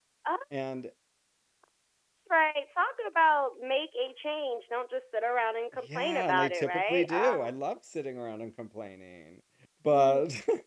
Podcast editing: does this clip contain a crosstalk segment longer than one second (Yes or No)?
Yes